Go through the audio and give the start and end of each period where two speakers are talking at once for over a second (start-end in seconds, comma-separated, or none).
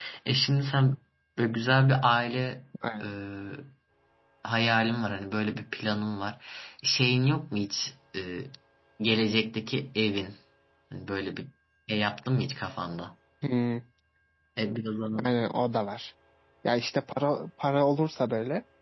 none